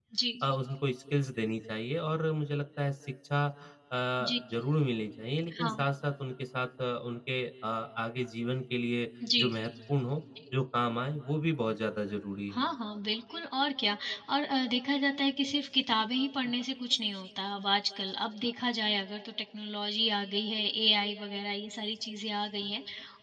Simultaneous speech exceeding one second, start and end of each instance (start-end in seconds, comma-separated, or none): none